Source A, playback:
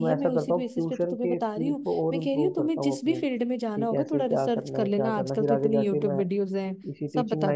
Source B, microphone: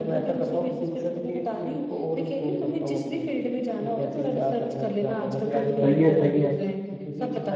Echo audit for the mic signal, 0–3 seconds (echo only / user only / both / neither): echo only